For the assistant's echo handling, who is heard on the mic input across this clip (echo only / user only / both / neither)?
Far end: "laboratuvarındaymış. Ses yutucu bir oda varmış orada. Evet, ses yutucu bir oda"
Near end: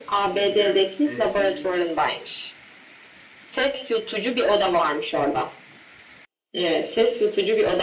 both